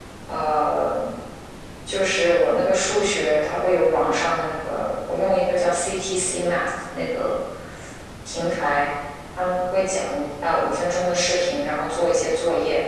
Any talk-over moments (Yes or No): No